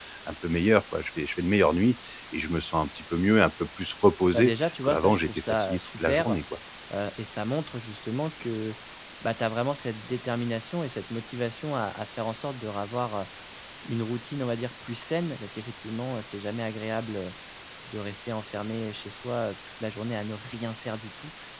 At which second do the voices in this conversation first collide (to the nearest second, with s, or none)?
4 s